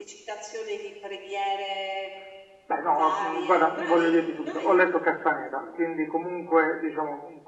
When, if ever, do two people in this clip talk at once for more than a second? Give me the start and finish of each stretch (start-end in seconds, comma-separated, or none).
2.9-4.8